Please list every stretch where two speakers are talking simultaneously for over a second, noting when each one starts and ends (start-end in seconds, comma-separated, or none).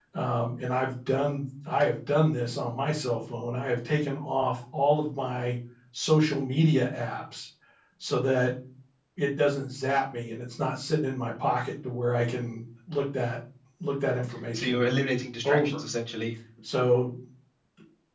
none